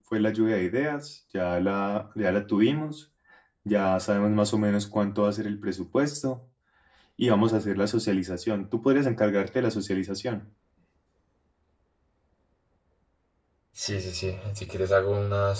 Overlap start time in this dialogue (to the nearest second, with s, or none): none